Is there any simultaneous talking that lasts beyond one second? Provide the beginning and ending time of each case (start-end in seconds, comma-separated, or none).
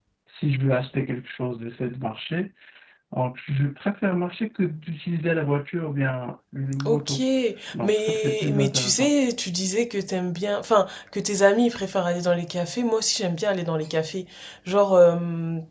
7.8-9.1